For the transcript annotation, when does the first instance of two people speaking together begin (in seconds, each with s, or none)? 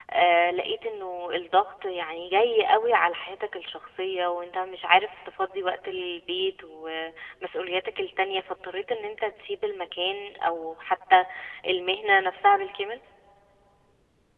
none